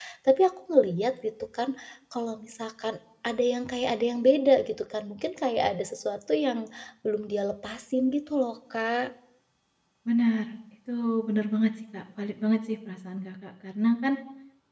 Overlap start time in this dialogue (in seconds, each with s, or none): none